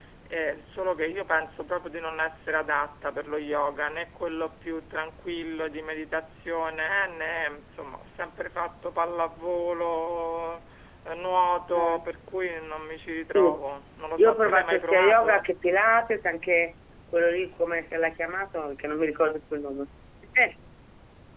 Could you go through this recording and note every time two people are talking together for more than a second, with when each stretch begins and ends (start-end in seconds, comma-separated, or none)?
14.2-15.5